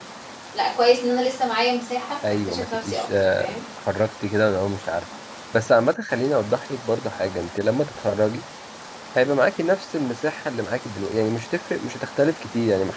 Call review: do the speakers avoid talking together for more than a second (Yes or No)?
No